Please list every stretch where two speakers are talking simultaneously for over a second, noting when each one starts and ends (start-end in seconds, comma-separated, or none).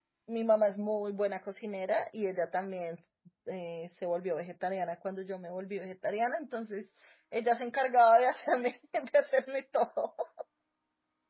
none